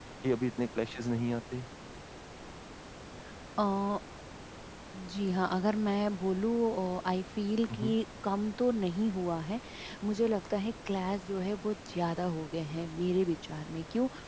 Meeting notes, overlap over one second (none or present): none